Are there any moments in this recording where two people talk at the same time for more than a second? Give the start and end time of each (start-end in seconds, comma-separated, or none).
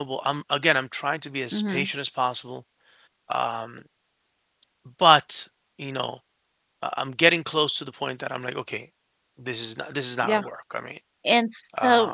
none